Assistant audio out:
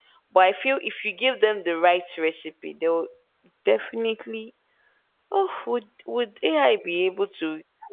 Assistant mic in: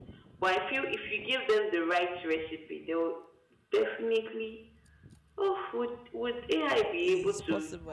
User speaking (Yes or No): Yes